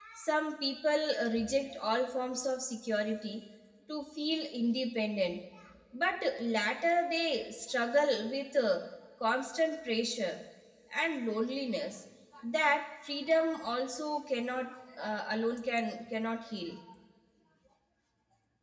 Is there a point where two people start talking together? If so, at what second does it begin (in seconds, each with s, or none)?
none